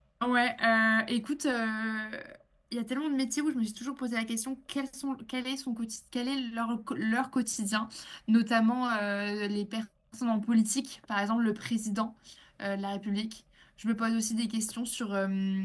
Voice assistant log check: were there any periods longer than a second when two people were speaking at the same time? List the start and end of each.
none

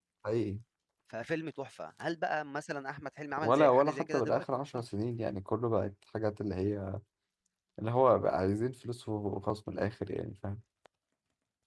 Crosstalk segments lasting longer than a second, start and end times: 3.4-4.8

